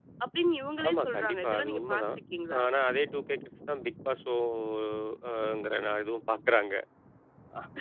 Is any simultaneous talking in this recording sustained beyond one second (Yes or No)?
Yes